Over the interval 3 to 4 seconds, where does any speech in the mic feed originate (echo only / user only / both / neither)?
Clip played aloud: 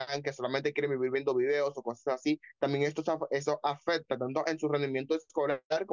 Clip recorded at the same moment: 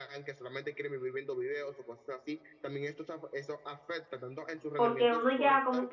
echo only